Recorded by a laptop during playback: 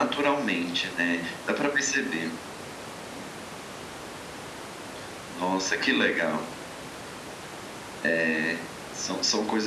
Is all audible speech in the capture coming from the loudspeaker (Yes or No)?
Yes